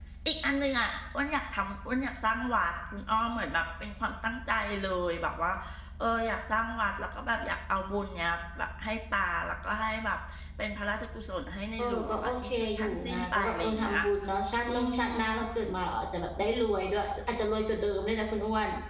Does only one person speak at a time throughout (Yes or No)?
No